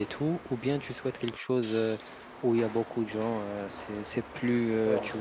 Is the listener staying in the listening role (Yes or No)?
No